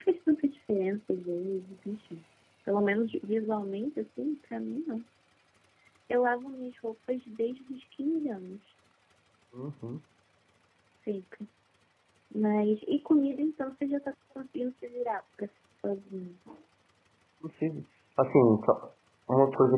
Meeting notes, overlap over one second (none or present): none